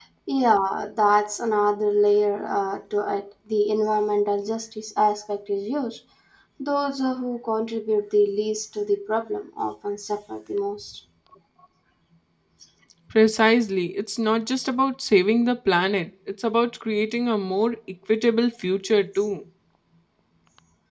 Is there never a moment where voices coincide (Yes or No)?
Yes